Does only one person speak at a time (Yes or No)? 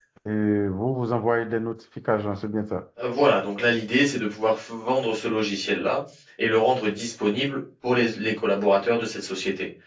Yes